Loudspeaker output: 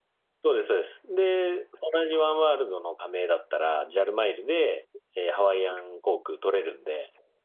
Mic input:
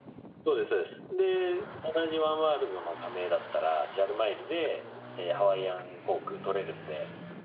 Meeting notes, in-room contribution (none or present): none